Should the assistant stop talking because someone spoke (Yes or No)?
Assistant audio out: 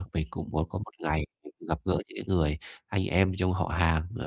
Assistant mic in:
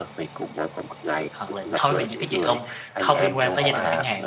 Yes